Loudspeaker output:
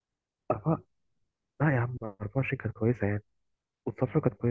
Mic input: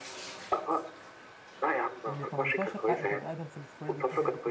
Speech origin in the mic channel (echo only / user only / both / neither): both